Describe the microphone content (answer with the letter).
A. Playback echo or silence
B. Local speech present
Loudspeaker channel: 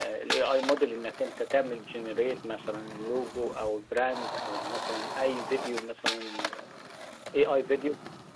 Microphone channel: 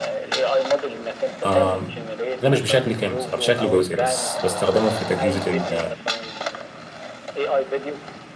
B